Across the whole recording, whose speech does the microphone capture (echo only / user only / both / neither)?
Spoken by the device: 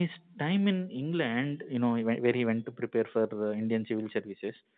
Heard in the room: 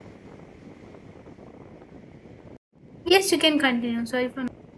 user only